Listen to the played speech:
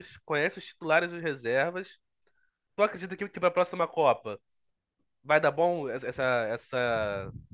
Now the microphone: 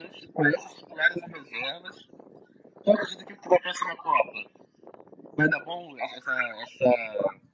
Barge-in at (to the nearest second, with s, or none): none